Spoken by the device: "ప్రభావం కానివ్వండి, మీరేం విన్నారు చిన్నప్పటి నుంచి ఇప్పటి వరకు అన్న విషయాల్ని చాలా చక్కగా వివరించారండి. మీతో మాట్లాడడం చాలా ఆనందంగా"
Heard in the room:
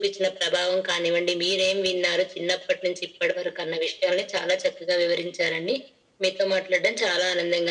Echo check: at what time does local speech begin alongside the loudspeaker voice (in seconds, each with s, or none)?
none